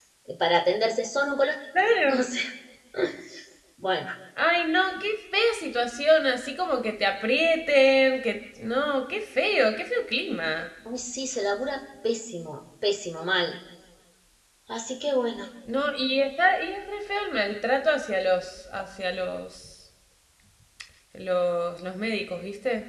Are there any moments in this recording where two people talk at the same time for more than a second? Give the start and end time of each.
none

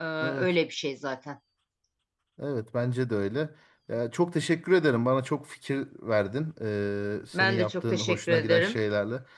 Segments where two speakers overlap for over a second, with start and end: 7.3-8.8

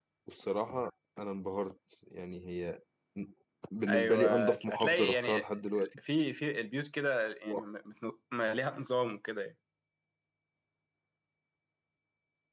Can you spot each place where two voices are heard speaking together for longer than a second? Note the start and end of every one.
3.9-5.5

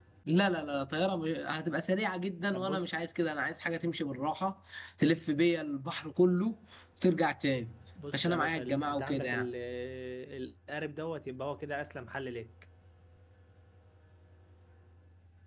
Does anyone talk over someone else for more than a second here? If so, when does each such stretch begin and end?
8.1-9.5

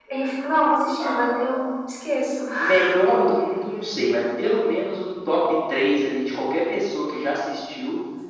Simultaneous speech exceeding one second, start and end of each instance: none

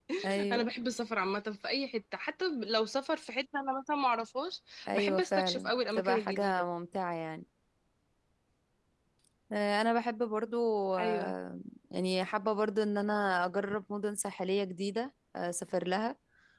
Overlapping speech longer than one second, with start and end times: 4.9-6.6

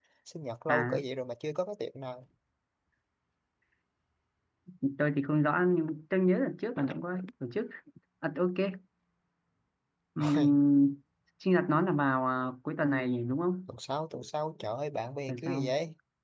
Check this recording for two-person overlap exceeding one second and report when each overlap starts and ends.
none

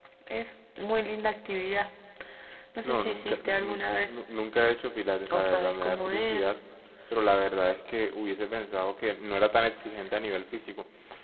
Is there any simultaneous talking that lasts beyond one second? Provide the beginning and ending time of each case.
2.8-4.2, 5.3-6.5

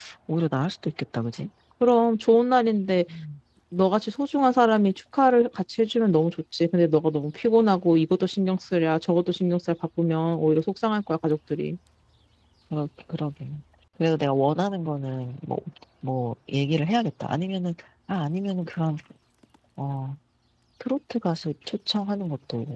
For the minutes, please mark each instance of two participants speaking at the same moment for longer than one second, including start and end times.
none

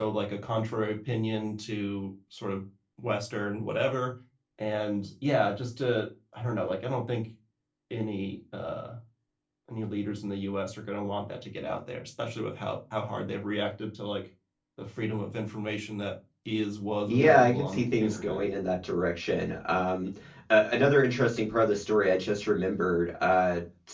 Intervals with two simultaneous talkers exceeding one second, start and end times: 17.1-18.4

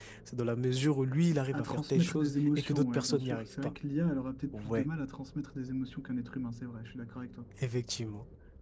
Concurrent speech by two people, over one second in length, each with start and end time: 1.5-3.7

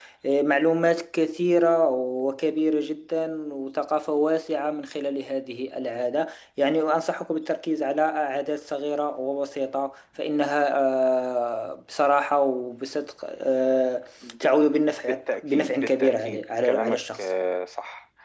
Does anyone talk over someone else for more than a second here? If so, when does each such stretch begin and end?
15.1-17.3

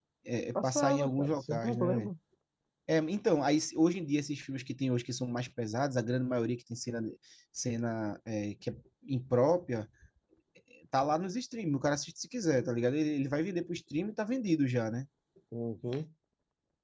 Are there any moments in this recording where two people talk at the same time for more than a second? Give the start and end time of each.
0.6-2.1

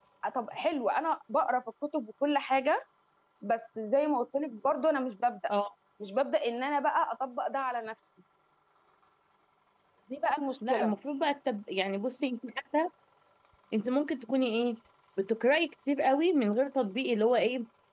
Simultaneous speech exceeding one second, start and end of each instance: none

